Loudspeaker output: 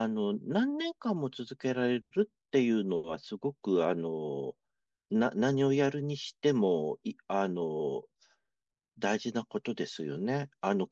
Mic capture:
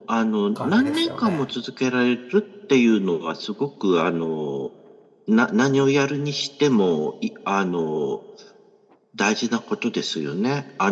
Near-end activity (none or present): present